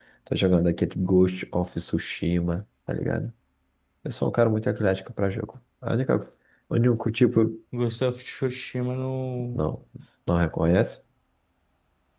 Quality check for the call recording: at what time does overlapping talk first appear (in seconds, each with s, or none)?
none